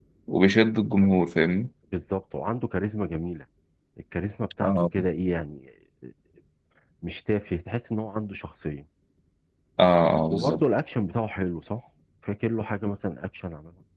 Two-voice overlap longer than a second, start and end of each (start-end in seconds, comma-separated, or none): none